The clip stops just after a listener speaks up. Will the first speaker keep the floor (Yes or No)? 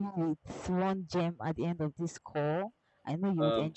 No